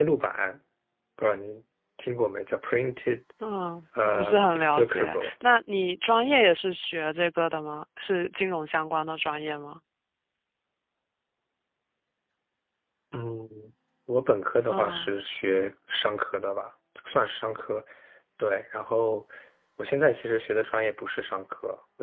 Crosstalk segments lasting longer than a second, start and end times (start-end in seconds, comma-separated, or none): 4.0-5.3